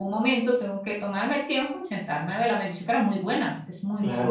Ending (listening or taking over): taking over